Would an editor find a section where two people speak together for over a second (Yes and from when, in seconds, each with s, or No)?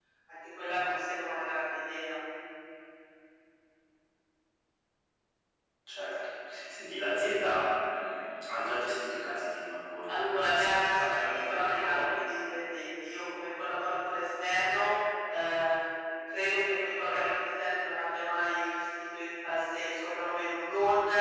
Yes, from 10.1 s